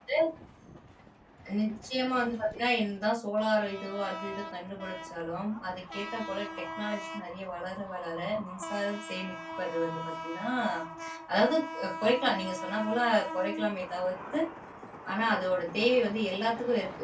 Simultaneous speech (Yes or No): No